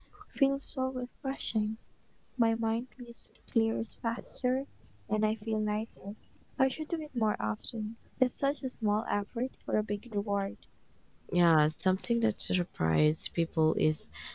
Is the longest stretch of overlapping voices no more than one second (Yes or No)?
Yes